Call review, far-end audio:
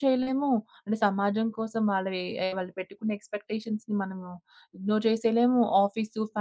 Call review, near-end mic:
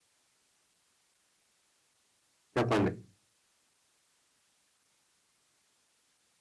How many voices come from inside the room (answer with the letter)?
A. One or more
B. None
A